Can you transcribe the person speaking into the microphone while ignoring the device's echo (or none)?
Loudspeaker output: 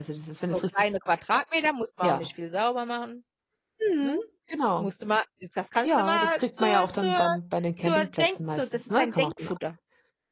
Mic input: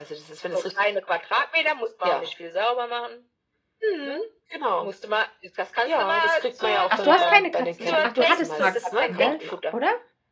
Ach, du hast keine Katzen, ich ach, du hattest mal Katzen, gell? Oder?